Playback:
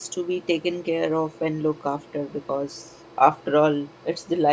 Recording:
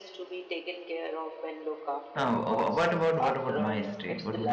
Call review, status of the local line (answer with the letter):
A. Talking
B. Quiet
A